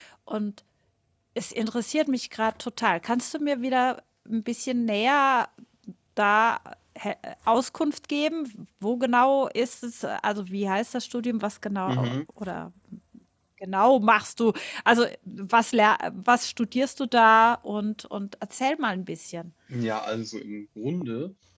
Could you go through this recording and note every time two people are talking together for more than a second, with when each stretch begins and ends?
none

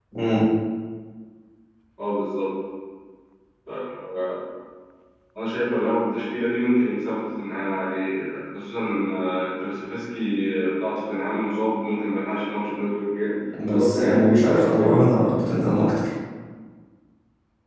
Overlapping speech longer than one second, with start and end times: 13.7-15.1

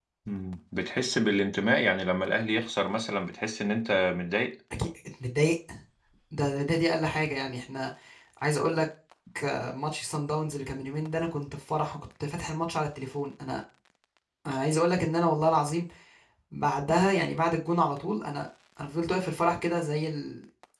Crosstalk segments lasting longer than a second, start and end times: none

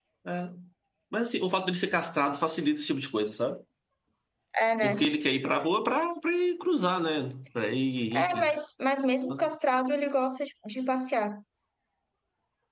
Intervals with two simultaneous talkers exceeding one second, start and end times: none

